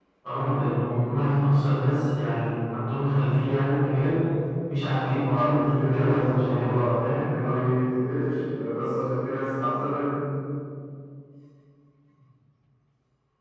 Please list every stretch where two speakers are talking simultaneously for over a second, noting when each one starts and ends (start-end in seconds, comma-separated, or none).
4.7-7.2